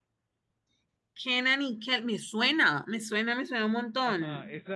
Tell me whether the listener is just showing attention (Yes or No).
No